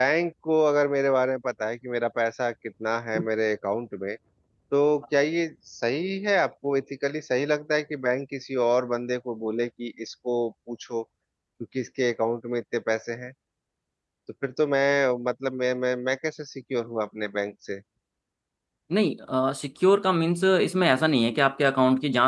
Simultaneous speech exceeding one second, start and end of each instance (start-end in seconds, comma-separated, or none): none